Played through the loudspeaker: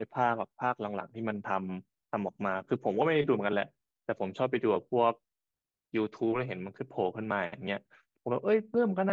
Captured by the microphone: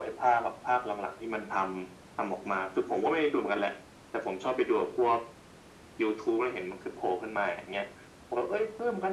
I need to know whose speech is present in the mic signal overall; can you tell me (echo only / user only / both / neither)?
echo only